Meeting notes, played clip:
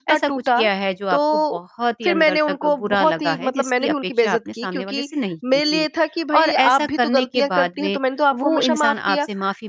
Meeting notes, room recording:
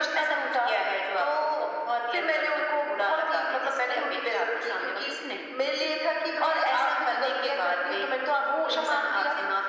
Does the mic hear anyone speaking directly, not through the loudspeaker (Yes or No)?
No